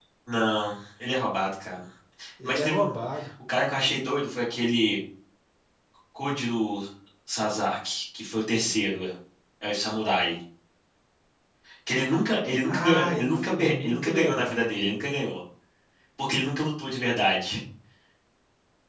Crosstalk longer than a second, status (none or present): present